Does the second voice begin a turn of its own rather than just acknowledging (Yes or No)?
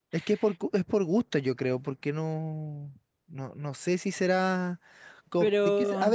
No